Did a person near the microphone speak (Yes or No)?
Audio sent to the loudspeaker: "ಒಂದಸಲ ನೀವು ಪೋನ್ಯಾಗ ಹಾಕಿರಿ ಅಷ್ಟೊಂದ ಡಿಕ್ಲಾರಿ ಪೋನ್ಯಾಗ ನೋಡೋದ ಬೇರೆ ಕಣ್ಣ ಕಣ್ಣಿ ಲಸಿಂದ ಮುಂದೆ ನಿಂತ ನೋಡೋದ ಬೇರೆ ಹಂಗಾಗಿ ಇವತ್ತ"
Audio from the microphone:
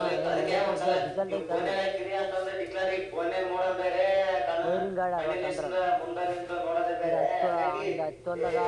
Yes